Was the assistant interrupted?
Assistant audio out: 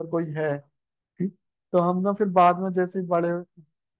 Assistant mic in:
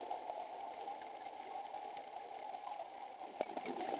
No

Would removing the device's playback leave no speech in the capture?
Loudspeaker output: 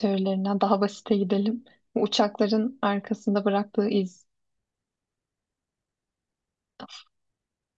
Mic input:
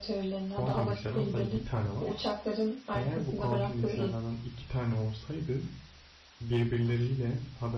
No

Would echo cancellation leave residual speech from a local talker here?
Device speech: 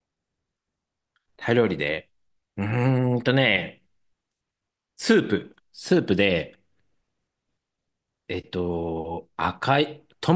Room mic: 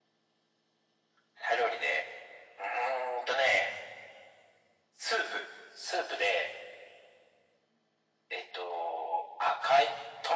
No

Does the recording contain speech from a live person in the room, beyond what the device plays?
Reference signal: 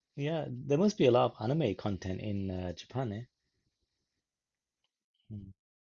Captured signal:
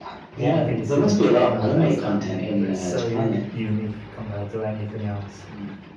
Yes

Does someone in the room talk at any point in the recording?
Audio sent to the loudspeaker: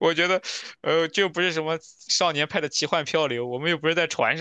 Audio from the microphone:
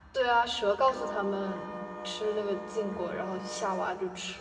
Yes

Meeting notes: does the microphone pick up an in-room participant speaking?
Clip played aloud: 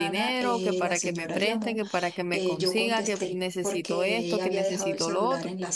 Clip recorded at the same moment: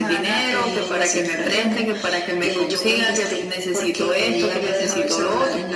No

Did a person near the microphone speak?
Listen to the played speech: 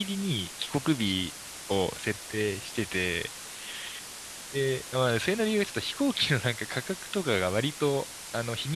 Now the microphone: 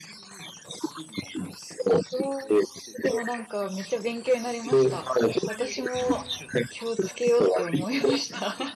Yes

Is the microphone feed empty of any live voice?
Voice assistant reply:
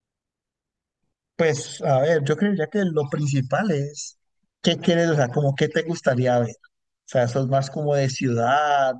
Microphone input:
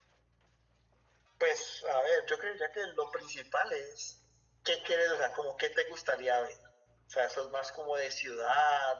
Yes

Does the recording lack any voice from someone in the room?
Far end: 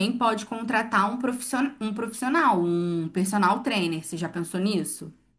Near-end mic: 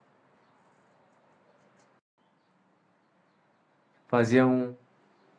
No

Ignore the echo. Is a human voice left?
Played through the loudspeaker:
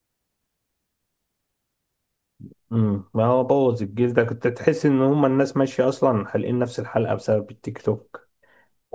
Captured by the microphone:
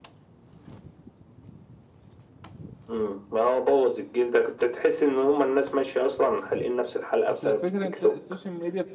Yes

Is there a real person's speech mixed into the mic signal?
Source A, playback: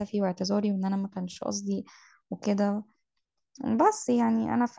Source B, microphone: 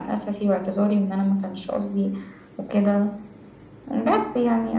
No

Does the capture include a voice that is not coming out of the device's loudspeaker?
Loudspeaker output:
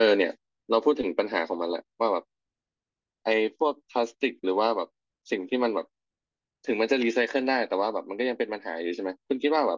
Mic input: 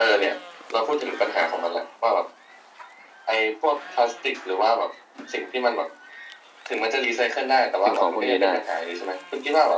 Yes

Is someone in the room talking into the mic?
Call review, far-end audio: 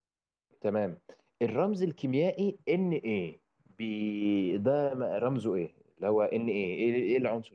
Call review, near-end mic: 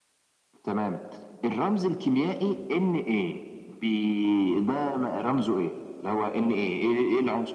No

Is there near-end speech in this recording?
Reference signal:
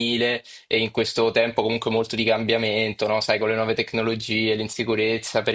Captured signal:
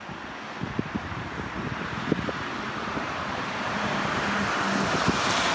No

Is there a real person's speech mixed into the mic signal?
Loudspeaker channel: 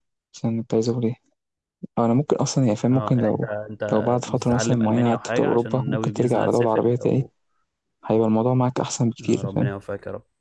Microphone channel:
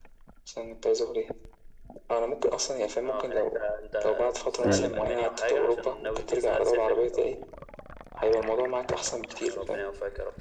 Yes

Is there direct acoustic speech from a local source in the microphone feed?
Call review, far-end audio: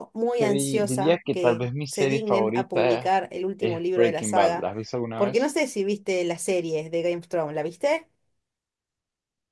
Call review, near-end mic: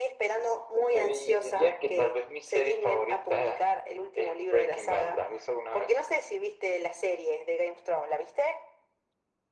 No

